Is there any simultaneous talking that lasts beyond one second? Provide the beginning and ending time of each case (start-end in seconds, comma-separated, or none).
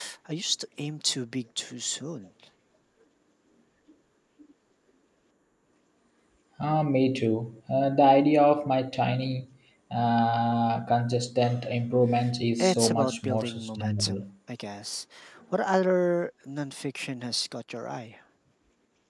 12.6-14.2